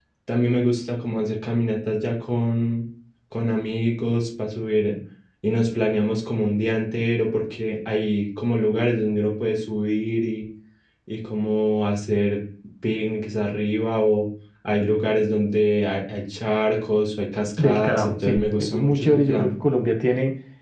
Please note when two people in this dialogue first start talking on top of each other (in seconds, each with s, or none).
17.6 s